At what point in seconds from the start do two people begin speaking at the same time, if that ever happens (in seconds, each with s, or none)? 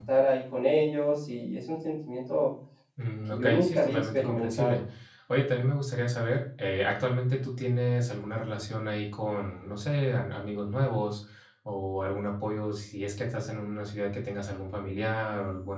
3.2 s